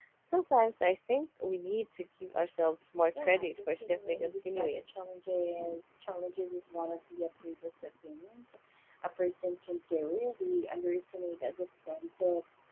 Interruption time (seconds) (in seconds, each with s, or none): 3.2 s